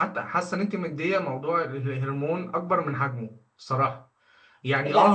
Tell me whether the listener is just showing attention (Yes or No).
Yes